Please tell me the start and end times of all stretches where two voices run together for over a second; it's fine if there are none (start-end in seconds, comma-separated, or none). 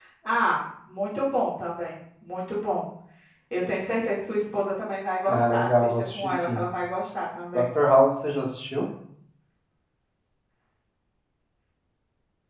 5.3-6.6